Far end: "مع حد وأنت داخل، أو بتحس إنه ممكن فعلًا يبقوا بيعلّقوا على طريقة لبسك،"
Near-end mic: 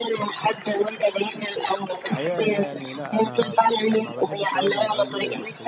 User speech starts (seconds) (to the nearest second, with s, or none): 2 s